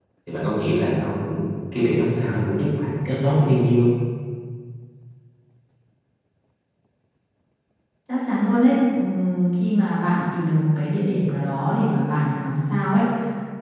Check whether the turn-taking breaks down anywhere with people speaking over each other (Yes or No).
No